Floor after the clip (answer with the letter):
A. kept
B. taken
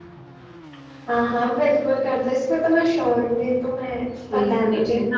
B